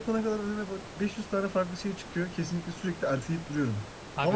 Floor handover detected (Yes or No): No